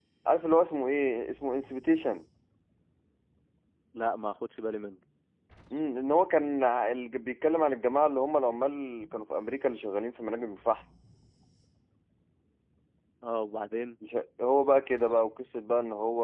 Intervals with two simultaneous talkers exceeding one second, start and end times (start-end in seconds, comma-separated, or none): none